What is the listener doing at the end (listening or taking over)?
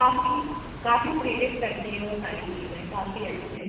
taking over